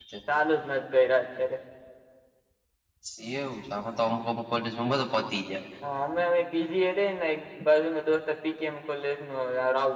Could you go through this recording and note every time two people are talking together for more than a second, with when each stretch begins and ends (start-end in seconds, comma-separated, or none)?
none